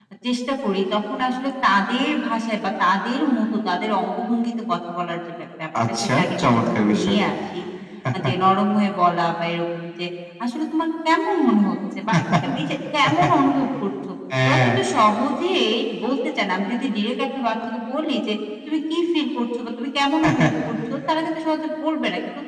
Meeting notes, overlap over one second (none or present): present